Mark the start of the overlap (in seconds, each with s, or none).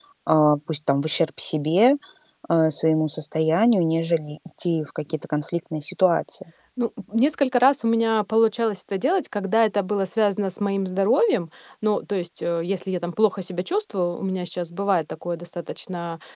none